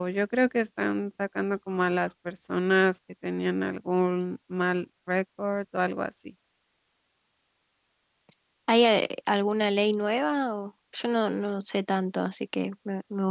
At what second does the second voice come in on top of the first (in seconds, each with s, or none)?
none